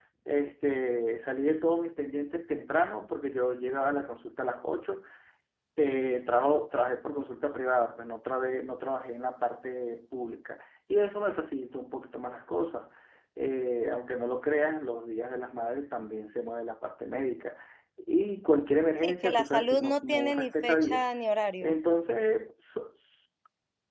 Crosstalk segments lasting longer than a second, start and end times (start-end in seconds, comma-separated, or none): 19.0-21.1